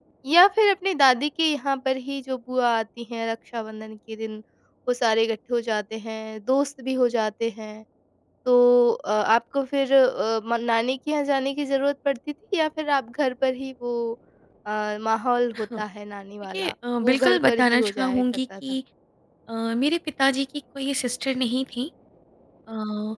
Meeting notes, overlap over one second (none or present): present